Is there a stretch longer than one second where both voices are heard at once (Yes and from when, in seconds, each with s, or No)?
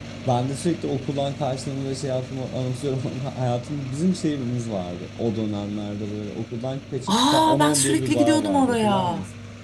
Yes, from 7.1 s